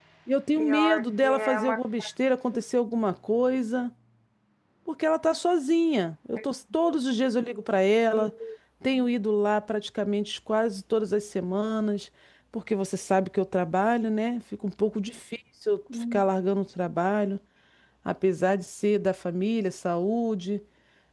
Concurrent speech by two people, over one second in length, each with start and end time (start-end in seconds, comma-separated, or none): 0.6-1.8